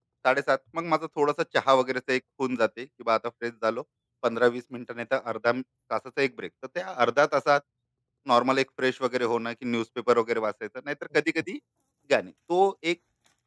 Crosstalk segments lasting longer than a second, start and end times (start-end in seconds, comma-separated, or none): none